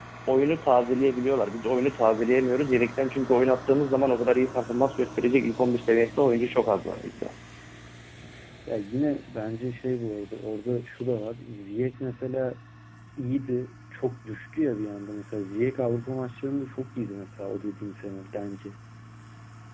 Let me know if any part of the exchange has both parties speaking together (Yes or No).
No